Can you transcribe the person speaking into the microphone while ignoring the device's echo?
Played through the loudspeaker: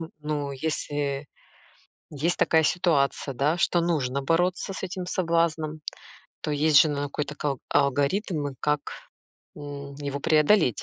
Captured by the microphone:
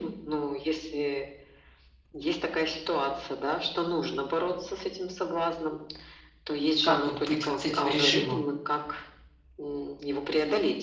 Как вот быть вот с этим режимом?

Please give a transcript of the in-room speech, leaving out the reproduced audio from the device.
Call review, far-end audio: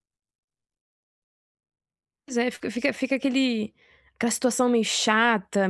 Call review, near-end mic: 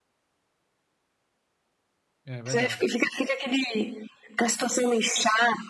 É verdade.

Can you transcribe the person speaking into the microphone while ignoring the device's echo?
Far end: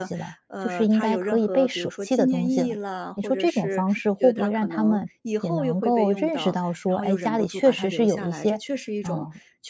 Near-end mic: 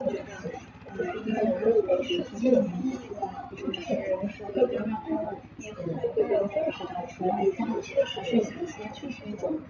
嗯，

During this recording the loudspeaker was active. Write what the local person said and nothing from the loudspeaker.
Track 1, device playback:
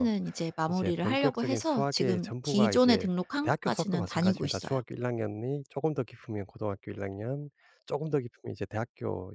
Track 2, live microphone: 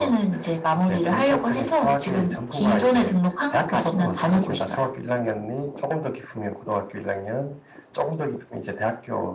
none

